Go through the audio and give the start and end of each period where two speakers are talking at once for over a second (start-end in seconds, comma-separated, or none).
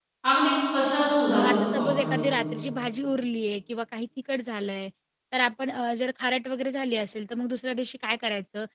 1.3-2.6